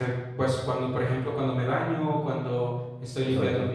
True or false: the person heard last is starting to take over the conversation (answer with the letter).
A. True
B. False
B